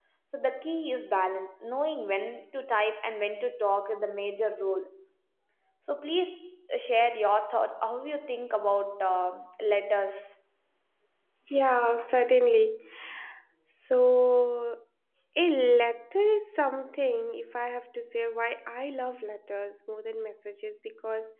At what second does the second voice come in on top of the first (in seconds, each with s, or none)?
none